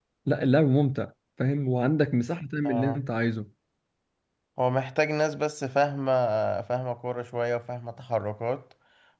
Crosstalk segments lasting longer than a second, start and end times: none

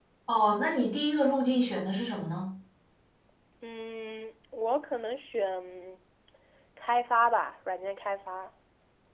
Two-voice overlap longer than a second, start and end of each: none

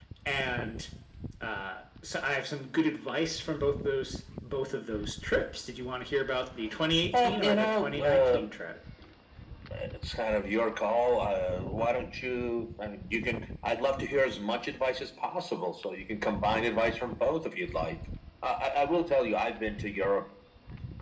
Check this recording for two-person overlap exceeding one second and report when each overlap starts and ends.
7.1-8.4

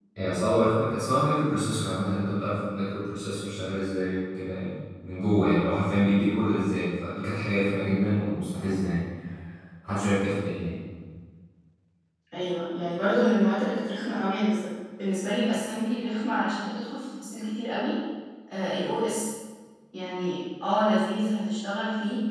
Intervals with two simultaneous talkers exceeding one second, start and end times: none

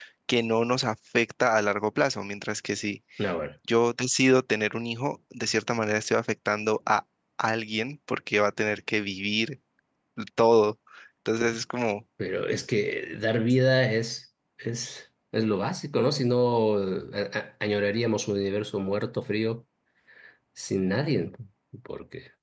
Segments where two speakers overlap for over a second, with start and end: none

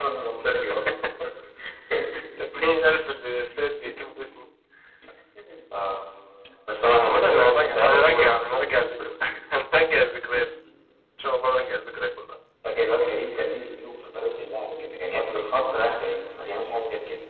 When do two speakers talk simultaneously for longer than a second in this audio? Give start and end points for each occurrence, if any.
7.0-8.3

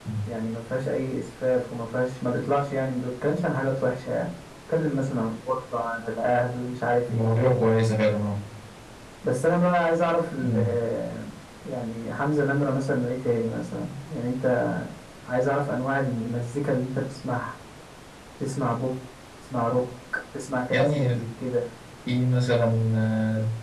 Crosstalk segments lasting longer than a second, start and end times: none

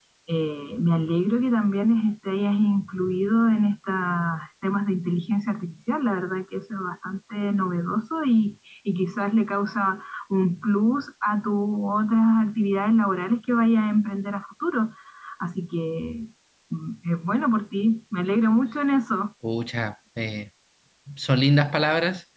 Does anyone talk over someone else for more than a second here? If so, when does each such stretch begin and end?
none

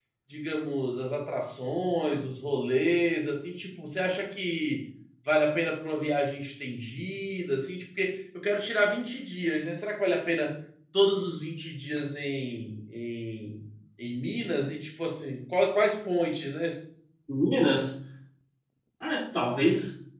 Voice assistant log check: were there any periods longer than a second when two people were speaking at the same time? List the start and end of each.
none

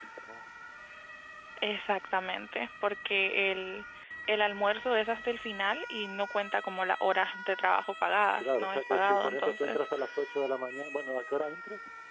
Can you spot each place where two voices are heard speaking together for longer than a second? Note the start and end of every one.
8.4-9.9

